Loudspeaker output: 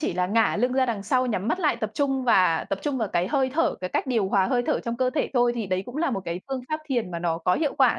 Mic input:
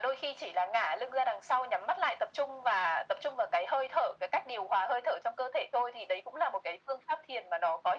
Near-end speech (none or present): none